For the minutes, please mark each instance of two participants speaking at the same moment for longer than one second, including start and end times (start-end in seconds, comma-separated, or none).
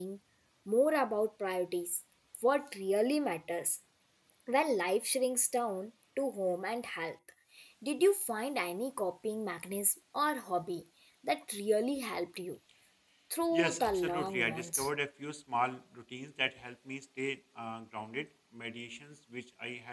13.5-14.9